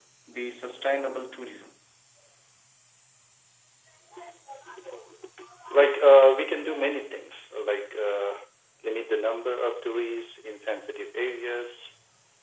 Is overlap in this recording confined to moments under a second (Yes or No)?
Yes